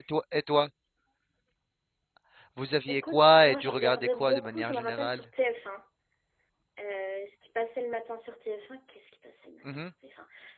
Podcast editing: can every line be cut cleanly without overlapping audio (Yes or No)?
No